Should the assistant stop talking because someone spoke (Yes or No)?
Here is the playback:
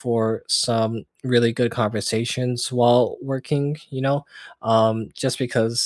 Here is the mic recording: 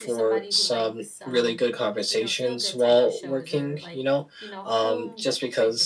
Yes